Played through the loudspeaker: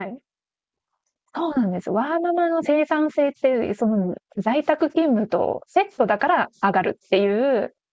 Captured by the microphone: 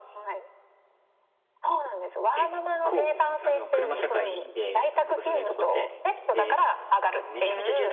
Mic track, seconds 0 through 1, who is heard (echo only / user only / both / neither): echo only